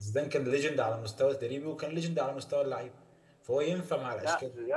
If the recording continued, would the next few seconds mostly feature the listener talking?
Yes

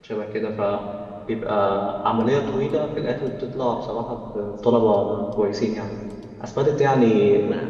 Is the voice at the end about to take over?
No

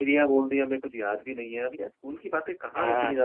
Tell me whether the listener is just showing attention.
Yes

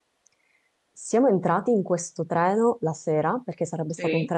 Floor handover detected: No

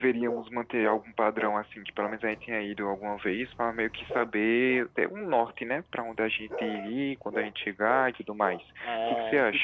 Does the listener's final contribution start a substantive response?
Yes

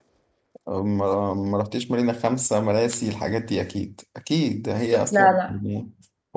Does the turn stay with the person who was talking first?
Yes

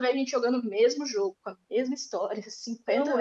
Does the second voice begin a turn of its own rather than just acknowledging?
Yes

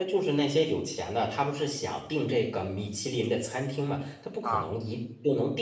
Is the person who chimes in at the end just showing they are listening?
Yes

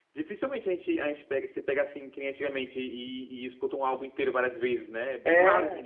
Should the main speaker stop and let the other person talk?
Yes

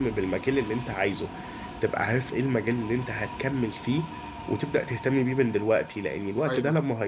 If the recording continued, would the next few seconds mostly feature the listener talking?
No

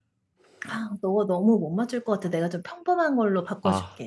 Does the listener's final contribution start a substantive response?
Yes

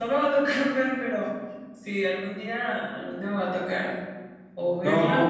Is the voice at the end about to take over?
Yes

